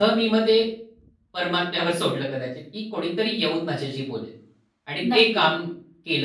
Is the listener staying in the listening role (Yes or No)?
Yes